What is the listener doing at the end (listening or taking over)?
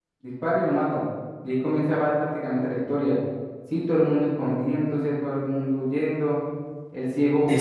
listening